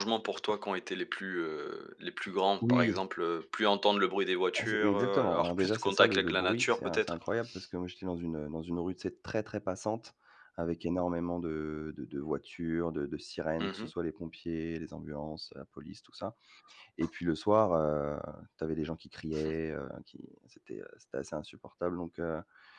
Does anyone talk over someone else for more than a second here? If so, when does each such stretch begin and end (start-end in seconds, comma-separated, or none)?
4.6-7.2